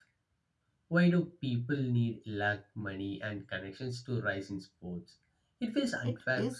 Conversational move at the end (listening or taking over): taking over